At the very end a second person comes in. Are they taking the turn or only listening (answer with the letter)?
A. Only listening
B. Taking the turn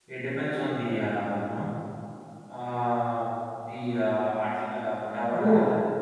A